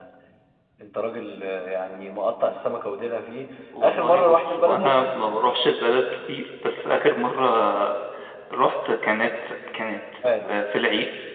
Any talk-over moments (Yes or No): Yes